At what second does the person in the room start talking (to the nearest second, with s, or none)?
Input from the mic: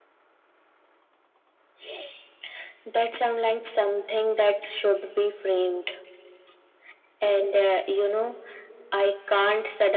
none